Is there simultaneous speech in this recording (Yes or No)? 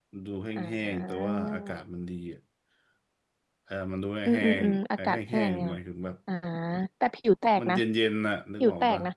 Yes